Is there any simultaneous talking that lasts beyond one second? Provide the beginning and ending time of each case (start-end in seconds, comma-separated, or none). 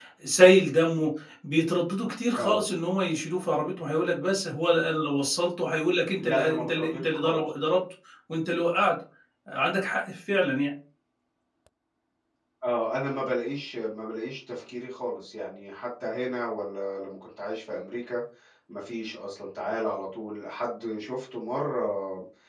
6.2-7.4